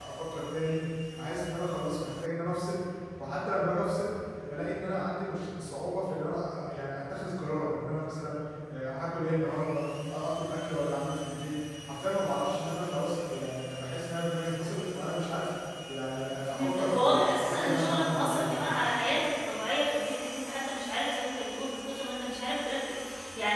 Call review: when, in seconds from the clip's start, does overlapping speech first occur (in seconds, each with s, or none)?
16.4 s